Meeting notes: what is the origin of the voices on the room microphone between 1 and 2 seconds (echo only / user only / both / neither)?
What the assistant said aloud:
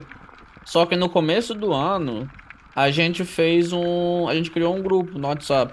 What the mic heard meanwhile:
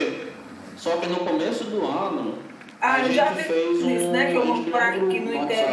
echo only